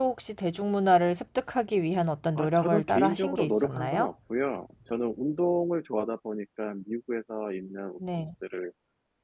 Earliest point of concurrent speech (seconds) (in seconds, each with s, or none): 2.4 s